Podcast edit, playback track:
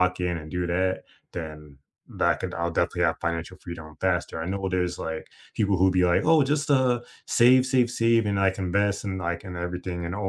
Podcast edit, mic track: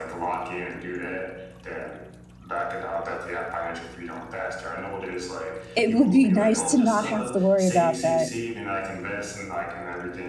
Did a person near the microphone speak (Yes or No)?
Yes